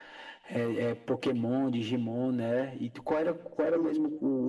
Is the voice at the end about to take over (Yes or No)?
No